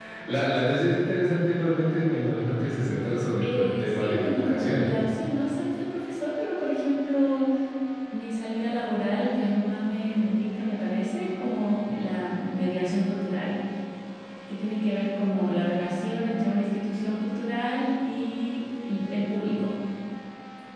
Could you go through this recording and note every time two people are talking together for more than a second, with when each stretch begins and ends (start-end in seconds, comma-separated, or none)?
3.4-4.9